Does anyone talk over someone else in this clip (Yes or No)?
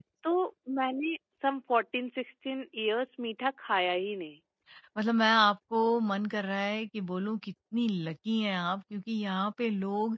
No